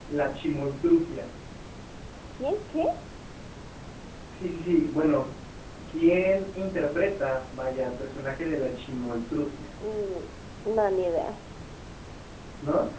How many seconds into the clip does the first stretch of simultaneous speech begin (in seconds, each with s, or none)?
none